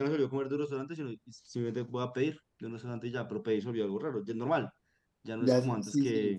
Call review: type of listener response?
taking over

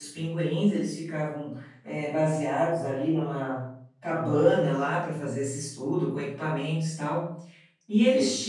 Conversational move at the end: listening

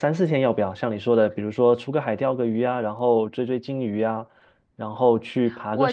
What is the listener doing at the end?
taking over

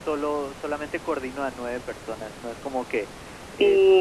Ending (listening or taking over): listening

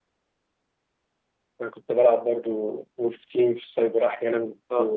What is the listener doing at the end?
taking over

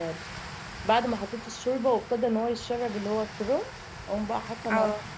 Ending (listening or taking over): listening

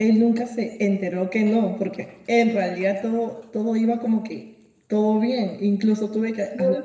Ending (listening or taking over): listening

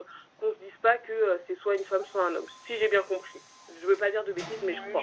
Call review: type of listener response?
taking over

